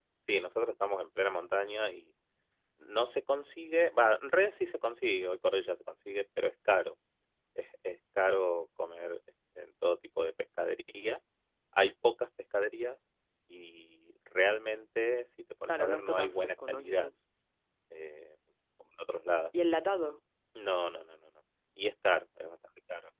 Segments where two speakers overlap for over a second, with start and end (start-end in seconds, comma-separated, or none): 15.7-17.1